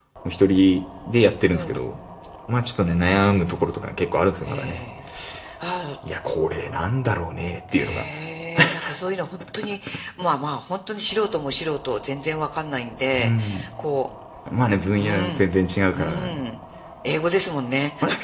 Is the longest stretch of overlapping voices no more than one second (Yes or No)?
Yes